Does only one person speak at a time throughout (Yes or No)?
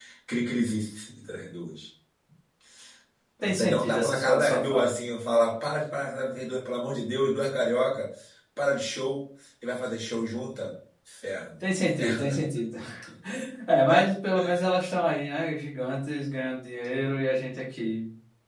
No